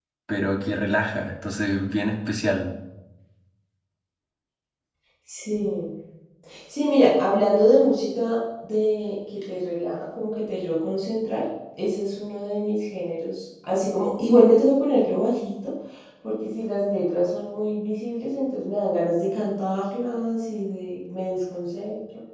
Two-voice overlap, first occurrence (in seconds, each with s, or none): none